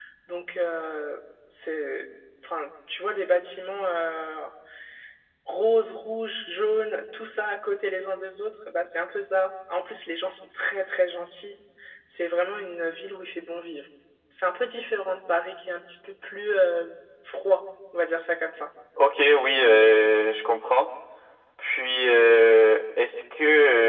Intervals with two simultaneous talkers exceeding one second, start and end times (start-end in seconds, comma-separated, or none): none